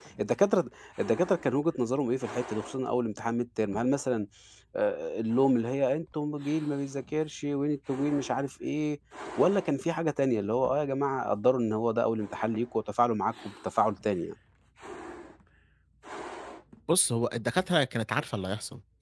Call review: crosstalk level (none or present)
none